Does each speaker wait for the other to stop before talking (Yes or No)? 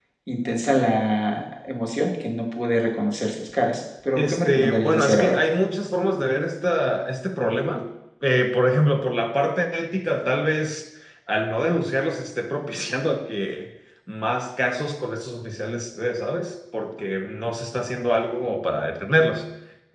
No